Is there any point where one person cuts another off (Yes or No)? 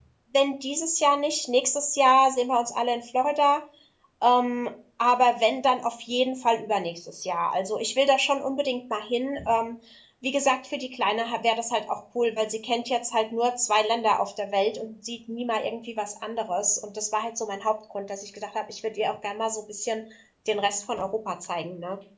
No